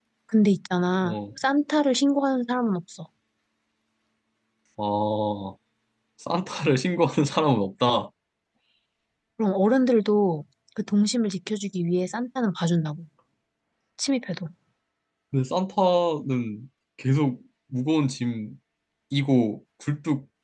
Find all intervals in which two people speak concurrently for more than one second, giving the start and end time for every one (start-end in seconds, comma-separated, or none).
none